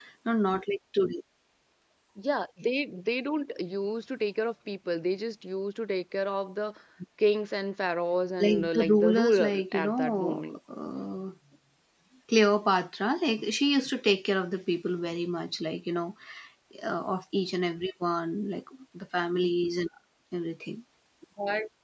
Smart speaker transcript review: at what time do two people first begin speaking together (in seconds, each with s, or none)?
8.4 s